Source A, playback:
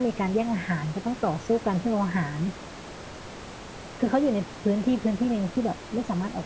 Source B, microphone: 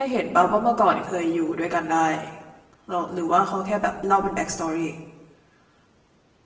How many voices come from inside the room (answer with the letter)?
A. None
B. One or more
B